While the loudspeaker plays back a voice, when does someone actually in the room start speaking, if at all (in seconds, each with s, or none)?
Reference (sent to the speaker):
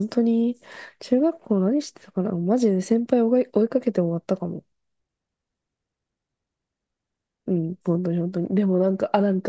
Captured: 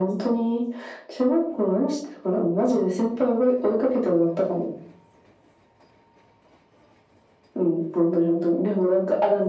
none